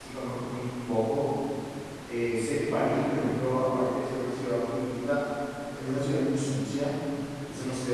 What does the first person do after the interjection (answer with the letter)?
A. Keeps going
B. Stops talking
A